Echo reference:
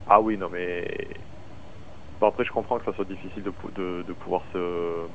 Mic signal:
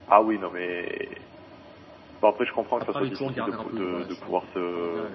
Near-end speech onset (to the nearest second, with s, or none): 3 s